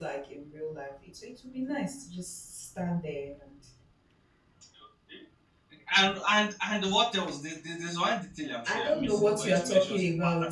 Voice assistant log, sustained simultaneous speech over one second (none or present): present